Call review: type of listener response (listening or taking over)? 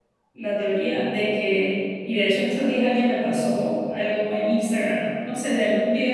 listening